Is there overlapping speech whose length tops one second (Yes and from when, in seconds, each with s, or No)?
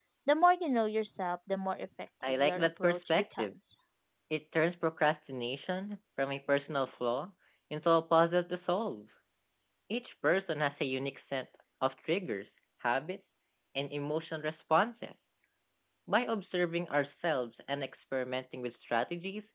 Yes, from 2.2 s